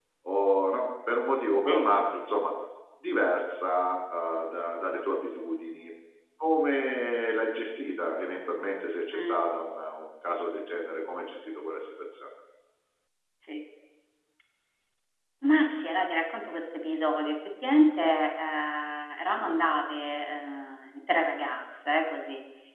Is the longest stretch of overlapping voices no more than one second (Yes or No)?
Yes